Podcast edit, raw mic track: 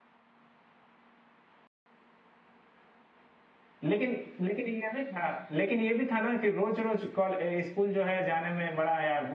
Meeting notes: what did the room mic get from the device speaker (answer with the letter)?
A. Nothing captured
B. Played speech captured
A